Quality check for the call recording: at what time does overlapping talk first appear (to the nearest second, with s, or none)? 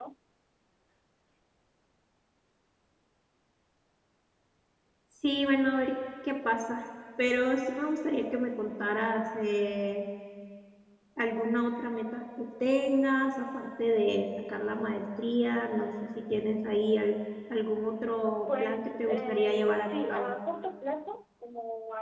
18 s